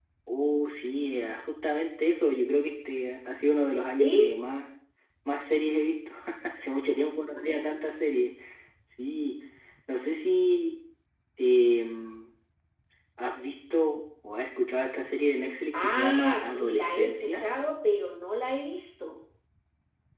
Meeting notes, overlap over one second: present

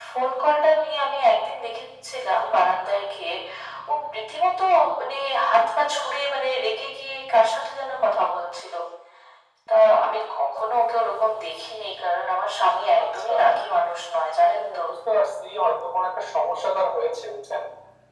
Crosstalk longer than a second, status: none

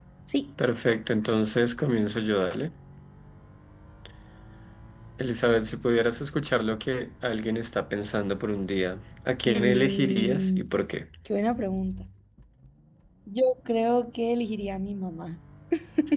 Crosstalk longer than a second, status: present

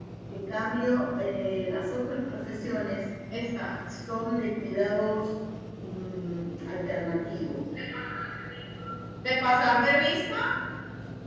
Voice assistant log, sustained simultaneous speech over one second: none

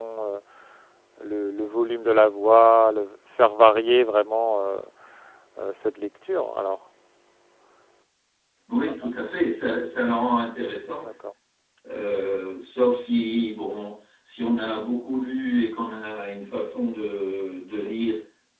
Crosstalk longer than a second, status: none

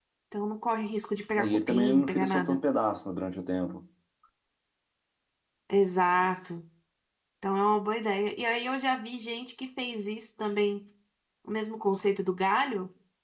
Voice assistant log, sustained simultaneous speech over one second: present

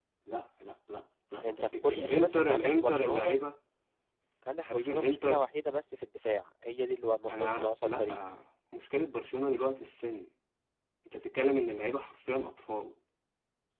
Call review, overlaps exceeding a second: present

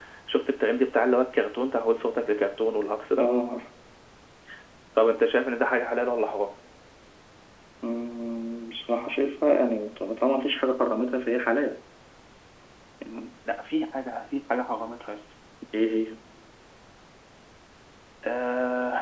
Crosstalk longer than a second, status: none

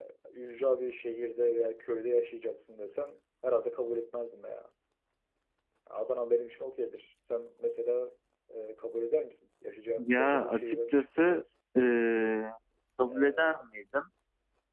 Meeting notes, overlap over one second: present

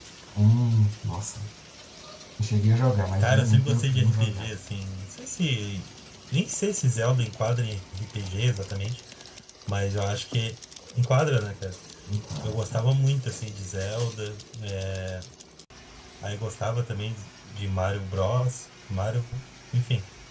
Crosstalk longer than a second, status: present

